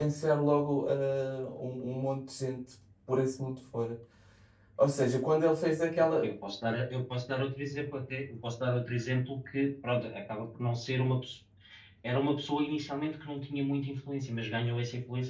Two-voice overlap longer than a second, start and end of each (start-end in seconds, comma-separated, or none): none